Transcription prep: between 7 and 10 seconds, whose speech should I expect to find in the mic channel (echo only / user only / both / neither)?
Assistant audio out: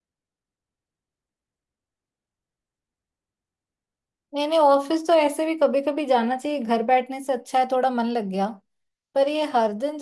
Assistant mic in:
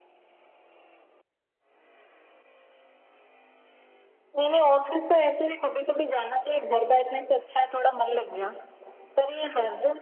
echo only